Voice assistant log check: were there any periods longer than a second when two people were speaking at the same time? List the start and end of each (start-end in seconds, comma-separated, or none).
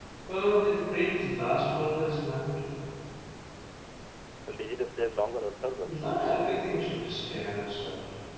none